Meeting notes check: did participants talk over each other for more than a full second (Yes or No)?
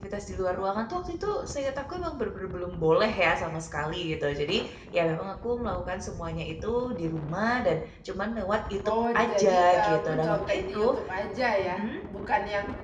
Yes